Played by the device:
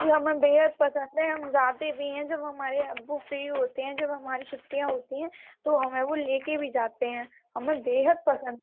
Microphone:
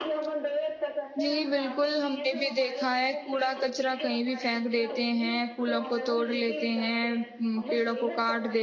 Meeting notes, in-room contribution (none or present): present